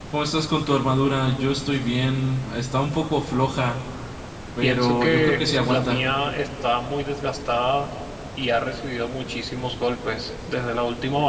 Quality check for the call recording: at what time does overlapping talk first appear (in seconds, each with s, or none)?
4.6 s